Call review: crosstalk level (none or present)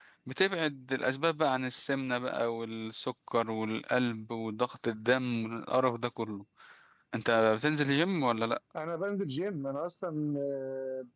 none